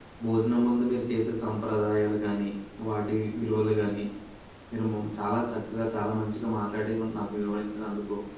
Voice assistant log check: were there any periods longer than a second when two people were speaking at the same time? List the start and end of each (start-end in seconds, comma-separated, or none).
none